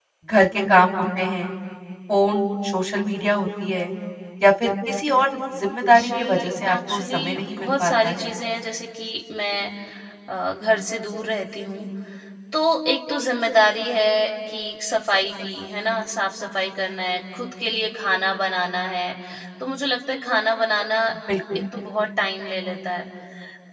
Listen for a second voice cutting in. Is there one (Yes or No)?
Yes